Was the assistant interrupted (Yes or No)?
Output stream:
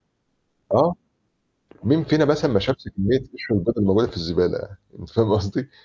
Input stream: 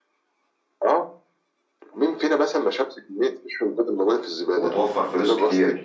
Yes